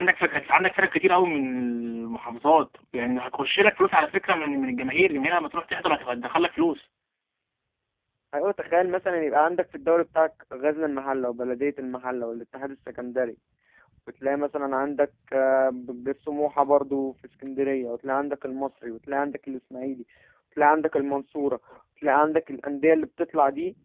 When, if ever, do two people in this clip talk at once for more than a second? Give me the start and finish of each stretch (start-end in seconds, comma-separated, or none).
none